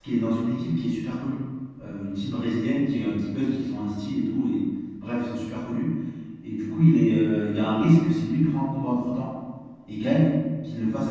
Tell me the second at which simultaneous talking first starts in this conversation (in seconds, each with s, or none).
none